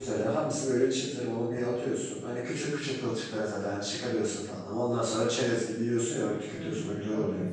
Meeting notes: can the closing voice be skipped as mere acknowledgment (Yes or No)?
No